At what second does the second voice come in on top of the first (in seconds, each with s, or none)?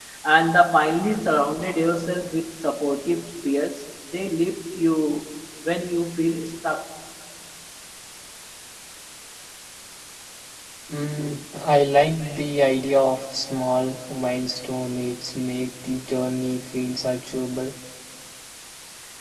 none